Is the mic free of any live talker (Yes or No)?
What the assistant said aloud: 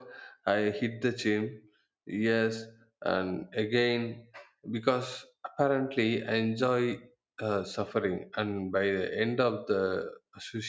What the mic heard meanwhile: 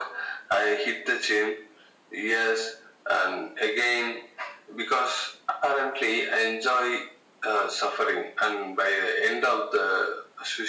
Yes